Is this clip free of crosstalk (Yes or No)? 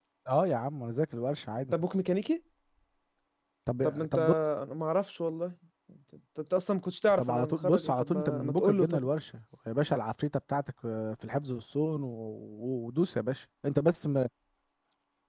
No